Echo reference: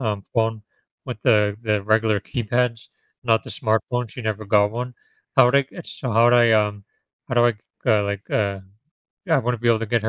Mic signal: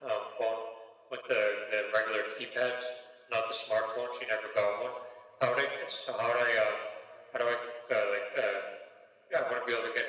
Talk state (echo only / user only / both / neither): echo only